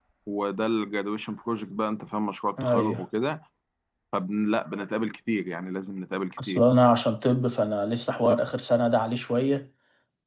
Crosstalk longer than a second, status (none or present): none